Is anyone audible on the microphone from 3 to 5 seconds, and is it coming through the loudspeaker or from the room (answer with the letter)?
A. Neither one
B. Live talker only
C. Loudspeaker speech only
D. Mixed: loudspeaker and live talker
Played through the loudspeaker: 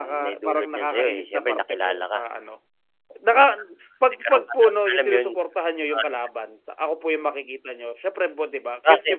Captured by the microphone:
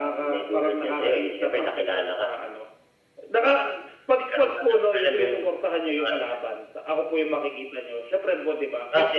C